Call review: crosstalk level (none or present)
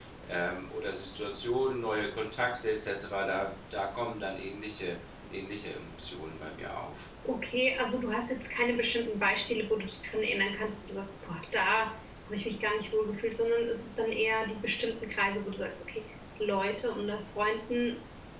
none